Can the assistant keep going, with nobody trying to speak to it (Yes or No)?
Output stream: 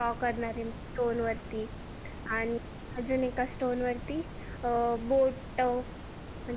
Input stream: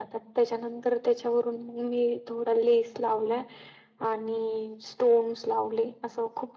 No